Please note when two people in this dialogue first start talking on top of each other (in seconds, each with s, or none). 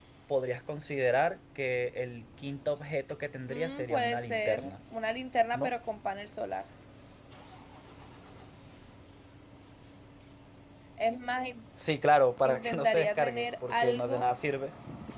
3.5 s